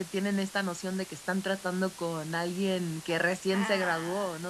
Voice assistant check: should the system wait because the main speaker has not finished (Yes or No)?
No